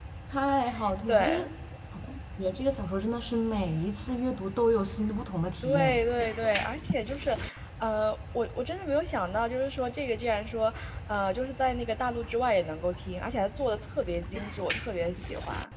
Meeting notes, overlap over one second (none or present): none